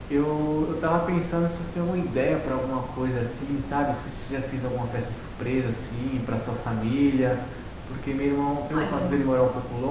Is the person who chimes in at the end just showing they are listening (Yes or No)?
Yes